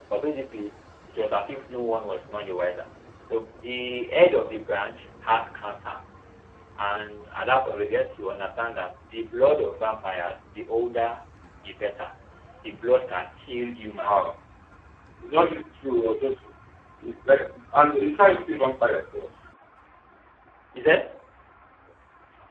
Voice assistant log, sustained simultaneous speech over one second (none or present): none